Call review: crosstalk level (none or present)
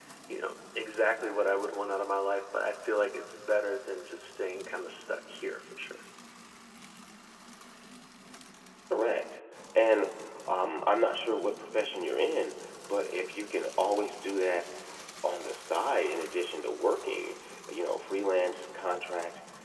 none